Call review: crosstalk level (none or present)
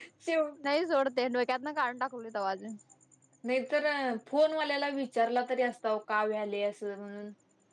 none